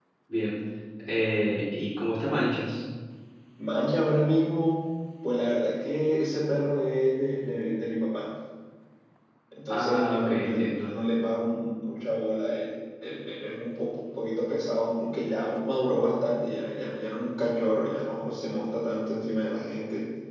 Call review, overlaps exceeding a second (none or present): present